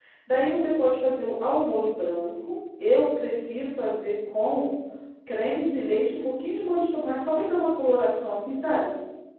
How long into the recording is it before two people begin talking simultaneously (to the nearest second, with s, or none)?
none